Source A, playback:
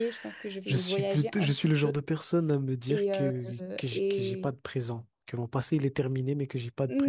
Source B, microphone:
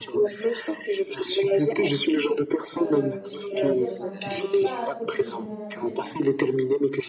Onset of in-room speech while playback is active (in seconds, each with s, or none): 2.8 s